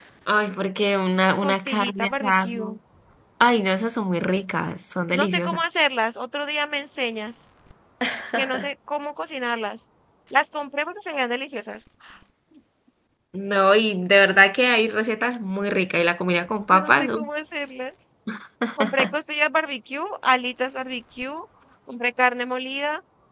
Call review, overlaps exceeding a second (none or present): present